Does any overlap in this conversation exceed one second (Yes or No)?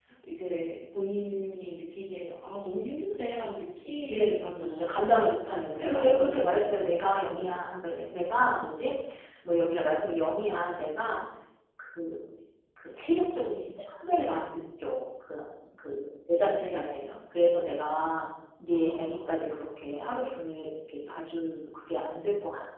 Yes